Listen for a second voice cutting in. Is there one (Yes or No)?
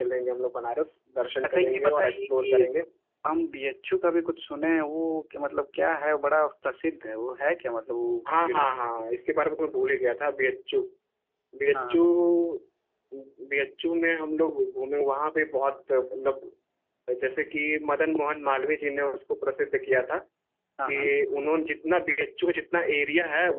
Yes